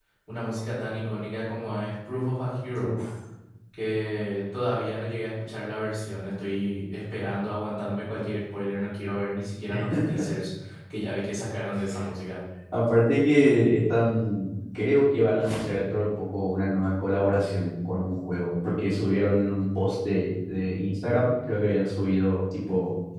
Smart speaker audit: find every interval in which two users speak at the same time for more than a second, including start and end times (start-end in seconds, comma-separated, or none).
none